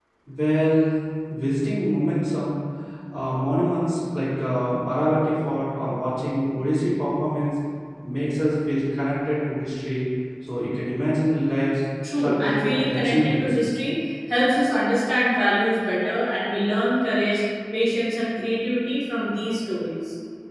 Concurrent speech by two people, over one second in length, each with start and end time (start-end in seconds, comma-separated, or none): 12.2-13.5